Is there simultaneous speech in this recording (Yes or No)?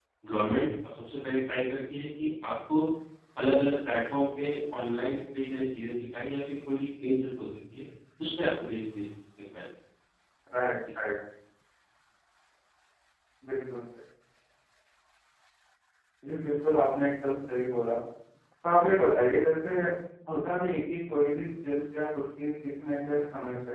No